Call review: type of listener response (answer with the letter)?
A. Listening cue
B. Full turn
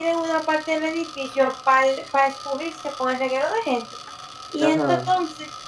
A